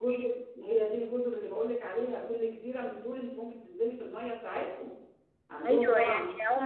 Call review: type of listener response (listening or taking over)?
taking over